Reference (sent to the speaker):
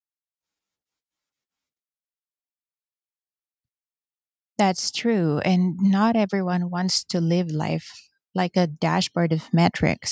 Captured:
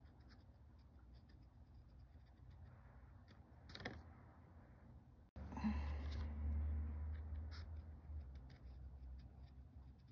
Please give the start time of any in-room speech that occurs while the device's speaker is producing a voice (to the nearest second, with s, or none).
none